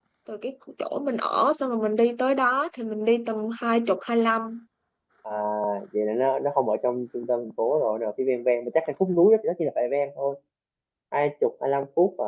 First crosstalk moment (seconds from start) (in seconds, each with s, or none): none